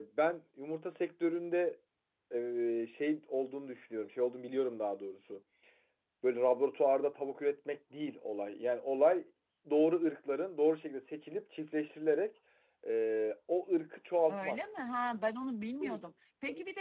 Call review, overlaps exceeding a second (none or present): none